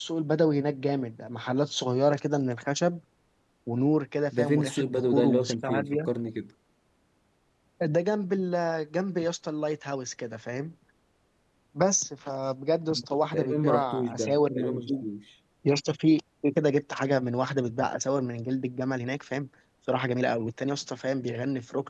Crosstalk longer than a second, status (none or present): present